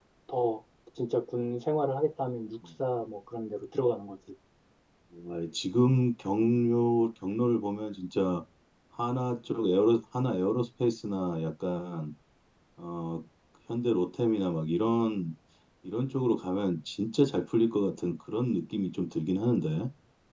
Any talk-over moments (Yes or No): No